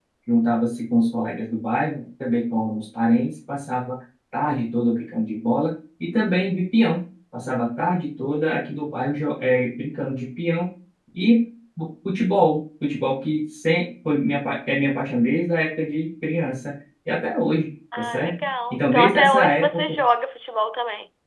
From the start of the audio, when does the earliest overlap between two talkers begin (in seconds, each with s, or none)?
17.9 s